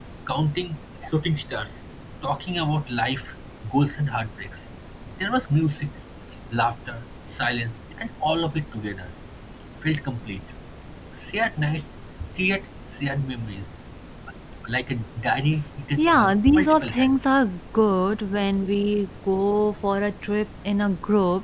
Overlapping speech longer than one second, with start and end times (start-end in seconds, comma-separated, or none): 16.0-17.2